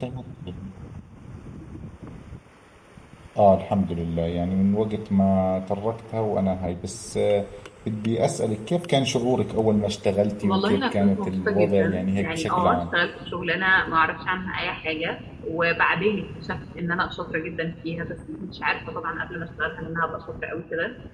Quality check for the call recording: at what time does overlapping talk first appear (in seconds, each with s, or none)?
10.4 s